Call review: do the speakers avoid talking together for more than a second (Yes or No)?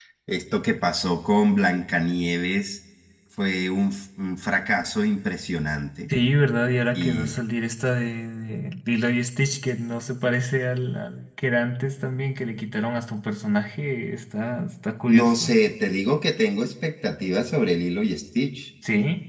Yes